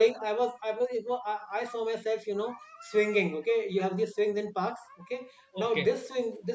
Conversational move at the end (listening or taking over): listening